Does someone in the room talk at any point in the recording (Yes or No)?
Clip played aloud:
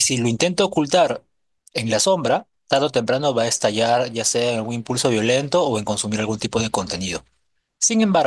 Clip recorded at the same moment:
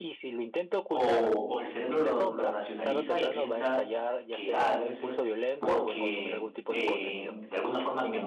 Yes